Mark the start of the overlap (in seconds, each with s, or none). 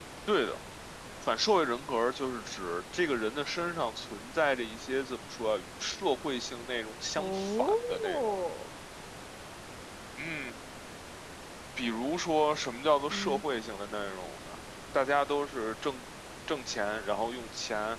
7.2 s